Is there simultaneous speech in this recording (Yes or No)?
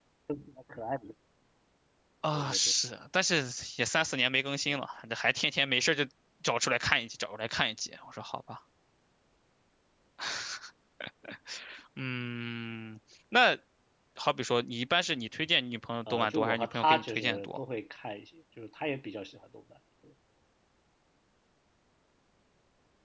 Yes